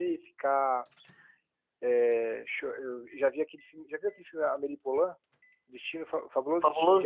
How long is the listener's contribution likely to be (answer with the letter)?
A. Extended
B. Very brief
A